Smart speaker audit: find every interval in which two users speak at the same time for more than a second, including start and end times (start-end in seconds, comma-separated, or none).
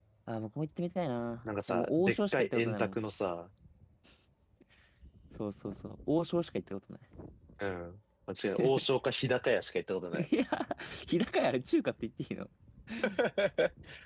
1.4-3.0